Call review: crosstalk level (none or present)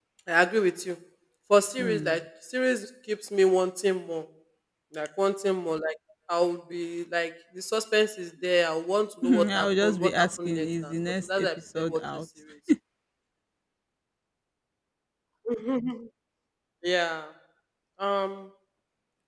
present